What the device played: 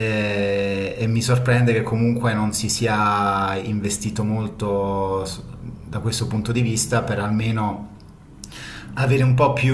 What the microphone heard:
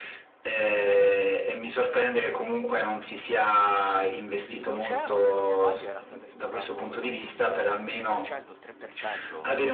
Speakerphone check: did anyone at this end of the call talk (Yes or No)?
Yes